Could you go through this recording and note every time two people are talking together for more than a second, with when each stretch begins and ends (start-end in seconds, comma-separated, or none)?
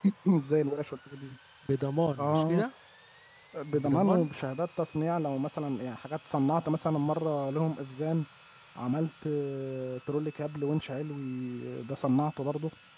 none